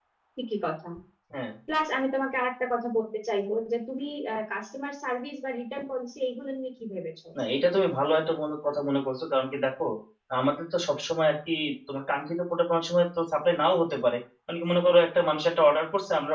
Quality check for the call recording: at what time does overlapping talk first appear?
none

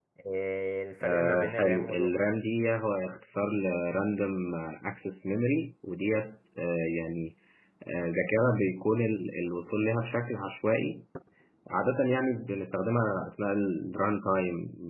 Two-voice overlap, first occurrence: 1.0 s

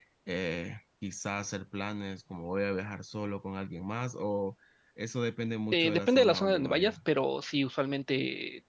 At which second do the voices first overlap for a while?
5.7 s

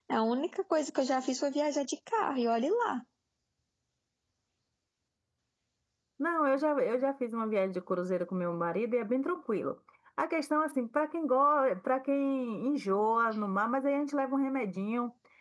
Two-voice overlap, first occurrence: none

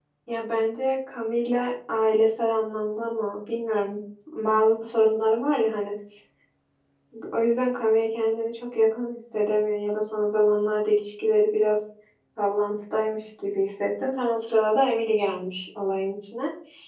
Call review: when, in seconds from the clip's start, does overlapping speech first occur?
none

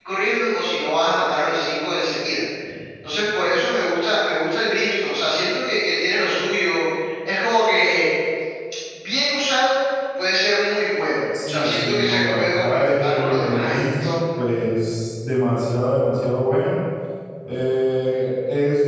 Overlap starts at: 11.3 s

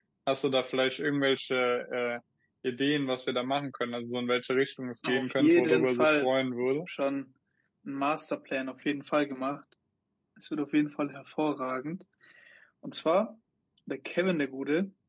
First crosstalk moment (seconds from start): 5.0 s

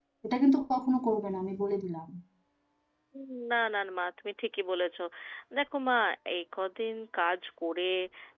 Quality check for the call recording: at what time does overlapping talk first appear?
none

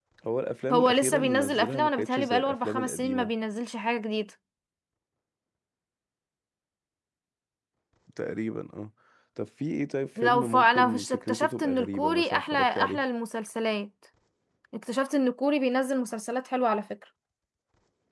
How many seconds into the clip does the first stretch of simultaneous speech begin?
0.7 s

